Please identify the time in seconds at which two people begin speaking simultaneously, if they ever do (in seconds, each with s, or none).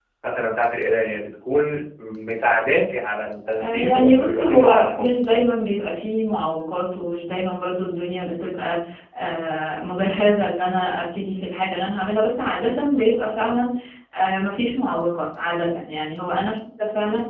3.5 s